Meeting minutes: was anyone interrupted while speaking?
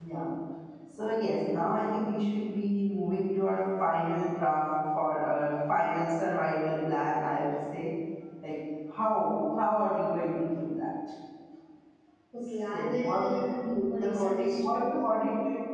Yes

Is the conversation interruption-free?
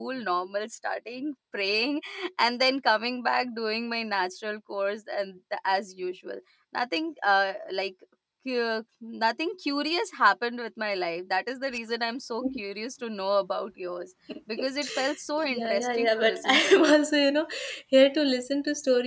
No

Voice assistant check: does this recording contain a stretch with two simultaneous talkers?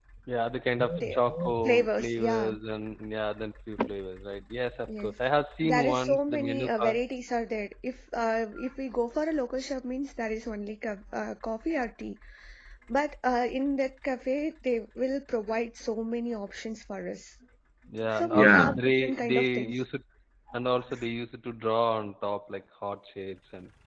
Yes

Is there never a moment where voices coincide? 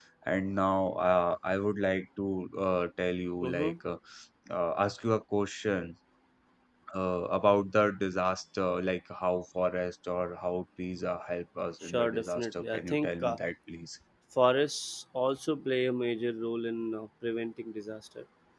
No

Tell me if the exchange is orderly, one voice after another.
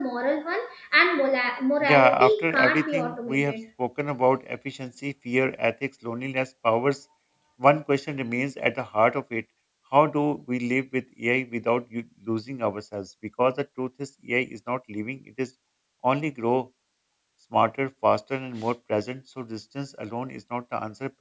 No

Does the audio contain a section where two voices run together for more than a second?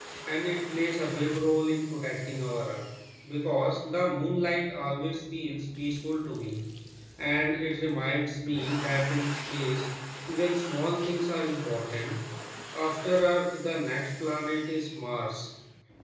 No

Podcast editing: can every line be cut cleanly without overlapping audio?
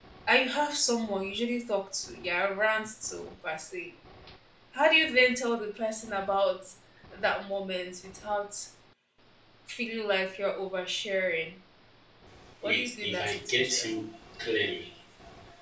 No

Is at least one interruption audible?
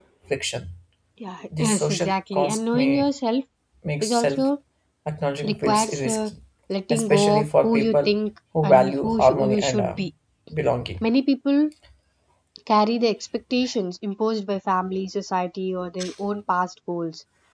Yes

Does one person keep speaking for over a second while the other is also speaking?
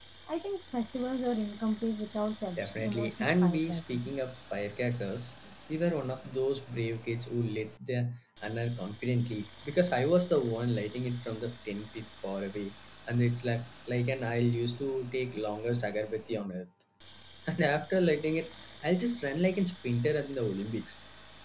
Yes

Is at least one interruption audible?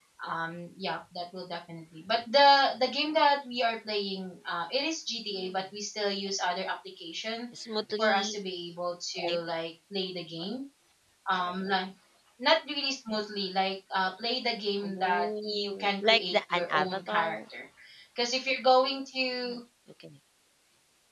Yes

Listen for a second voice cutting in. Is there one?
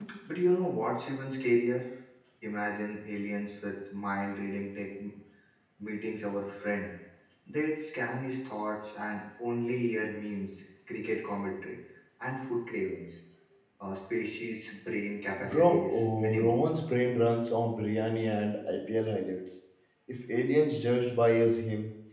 Yes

